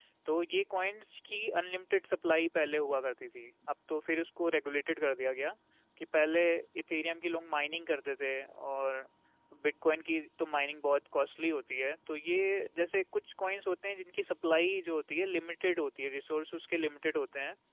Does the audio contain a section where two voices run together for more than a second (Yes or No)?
No